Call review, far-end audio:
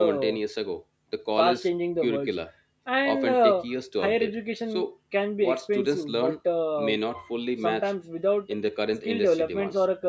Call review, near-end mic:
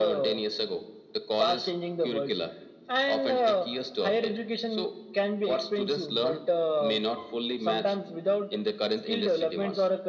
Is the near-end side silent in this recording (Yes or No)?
Yes